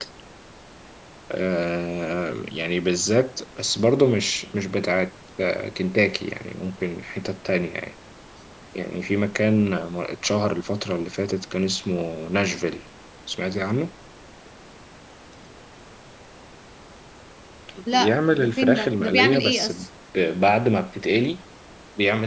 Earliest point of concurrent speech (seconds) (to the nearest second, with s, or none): 18 s